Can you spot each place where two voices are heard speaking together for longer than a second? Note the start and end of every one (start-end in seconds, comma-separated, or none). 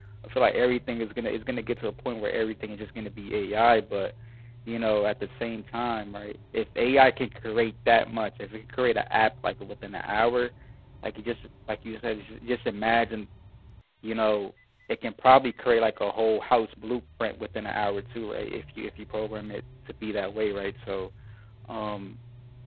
none